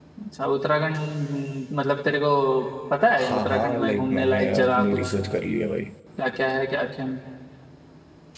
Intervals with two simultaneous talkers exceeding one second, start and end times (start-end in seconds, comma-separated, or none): 3.2-5.1